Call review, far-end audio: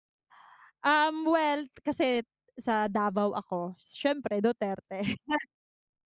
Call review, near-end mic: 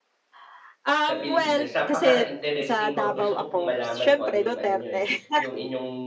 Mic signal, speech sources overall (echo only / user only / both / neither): both